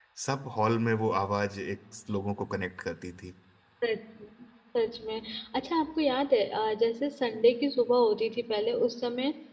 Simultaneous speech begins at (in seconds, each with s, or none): none